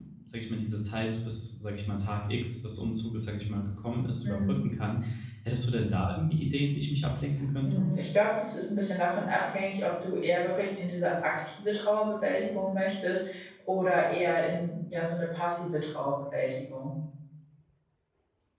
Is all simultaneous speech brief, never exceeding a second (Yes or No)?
Yes